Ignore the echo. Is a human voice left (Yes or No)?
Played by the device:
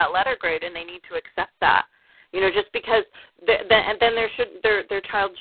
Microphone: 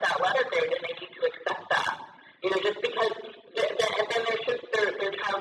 No